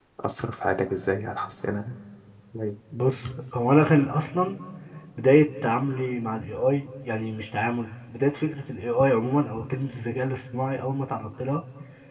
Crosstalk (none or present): none